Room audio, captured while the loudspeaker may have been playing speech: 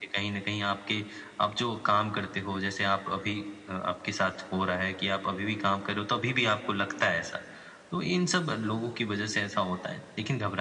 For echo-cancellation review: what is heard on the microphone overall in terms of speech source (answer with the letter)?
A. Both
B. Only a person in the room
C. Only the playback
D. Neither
C